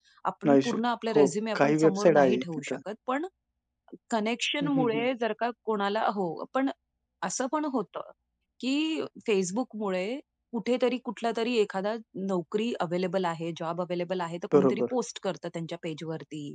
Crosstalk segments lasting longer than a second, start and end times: 1.1-2.8

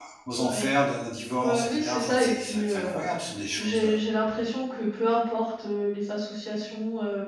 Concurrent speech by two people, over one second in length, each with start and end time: 1.3-3.1

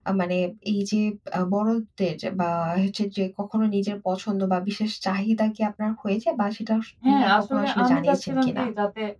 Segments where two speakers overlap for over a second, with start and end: 7.1-8.6

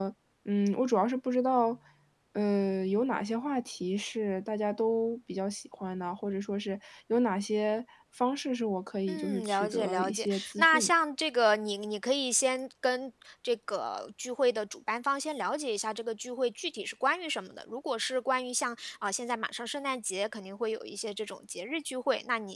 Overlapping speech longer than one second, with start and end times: 9.1-10.9

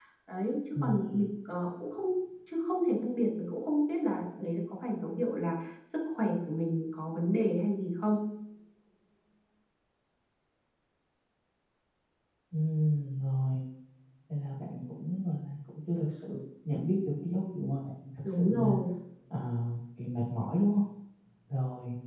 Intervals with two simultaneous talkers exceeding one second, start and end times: none

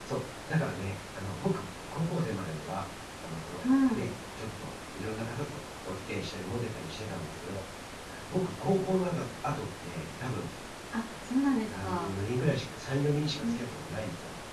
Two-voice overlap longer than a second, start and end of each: none

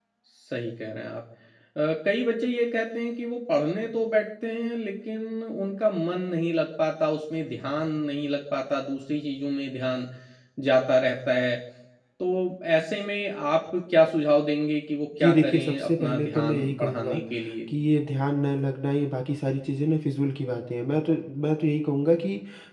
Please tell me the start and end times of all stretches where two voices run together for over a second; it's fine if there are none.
15.2-17.1

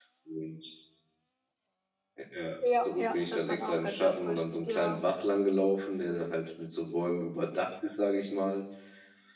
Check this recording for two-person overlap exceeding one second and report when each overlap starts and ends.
2.8-5.0

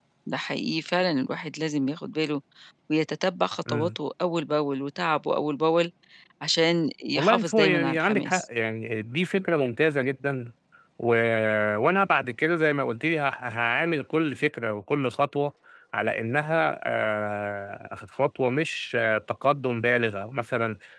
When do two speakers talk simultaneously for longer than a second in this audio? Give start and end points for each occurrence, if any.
7.2-8.4

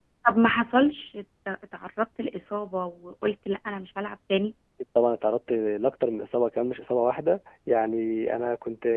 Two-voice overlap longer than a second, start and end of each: none

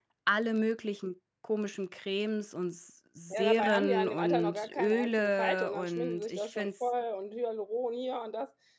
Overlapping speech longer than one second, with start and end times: 3.3-6.7

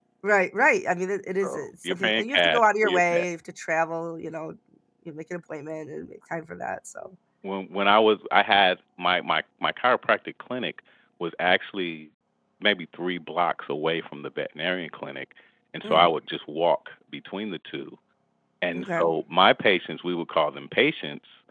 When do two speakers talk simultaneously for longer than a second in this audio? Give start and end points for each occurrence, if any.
1.4-3.2

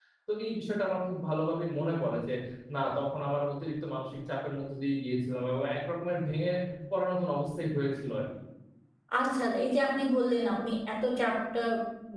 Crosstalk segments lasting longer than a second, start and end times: none

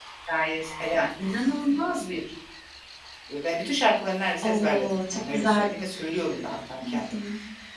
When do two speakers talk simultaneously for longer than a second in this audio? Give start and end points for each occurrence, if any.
4.4-5.7

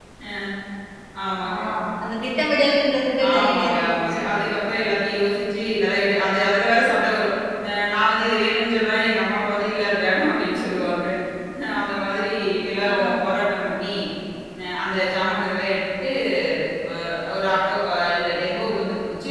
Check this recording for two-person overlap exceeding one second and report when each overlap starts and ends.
3.3-4.5

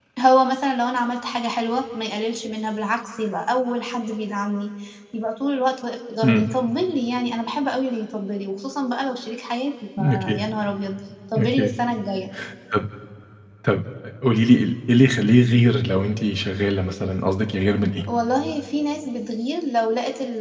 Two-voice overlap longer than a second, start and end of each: none

